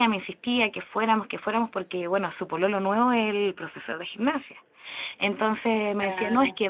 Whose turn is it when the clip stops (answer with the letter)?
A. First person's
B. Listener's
A